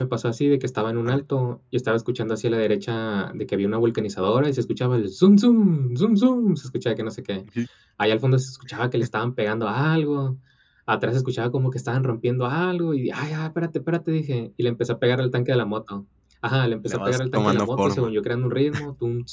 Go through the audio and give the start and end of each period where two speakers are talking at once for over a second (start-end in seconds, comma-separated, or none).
16.8-18.1